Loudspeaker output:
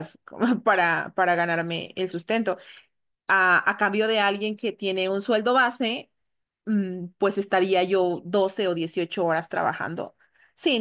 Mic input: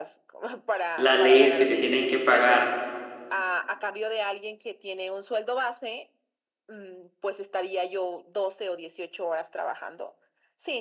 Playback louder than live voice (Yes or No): No